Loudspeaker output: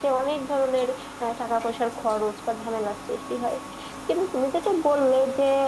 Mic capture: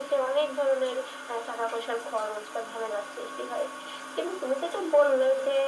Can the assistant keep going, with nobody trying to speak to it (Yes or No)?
Yes